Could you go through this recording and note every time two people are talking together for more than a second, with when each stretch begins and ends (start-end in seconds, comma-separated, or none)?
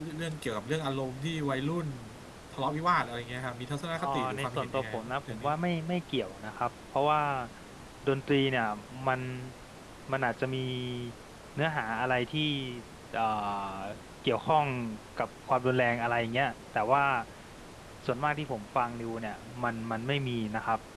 4.0-5.5